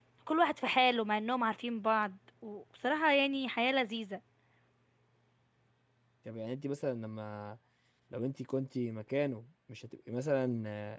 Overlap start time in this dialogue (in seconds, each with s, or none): none